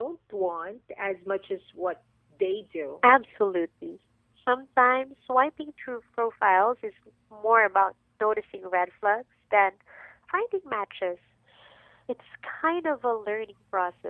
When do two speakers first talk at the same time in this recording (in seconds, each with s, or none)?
none